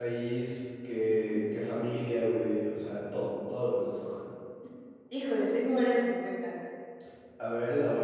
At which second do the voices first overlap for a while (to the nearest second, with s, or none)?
none